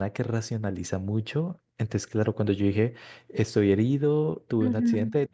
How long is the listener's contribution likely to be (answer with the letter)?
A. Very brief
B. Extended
A